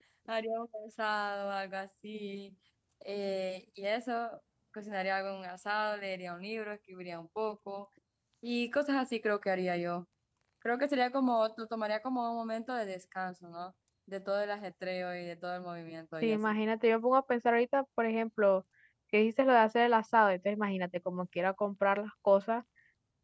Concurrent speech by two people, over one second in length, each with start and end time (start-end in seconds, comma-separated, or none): none